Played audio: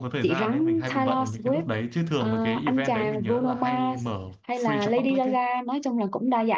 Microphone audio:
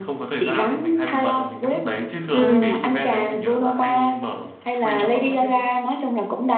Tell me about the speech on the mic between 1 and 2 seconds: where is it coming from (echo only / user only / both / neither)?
echo only